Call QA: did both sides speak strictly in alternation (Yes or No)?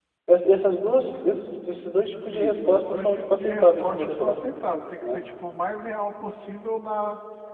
No